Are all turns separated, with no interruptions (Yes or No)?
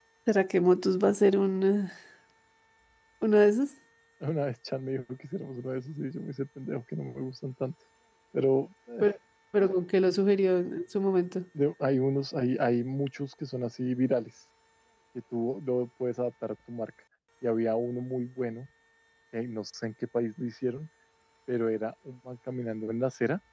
Yes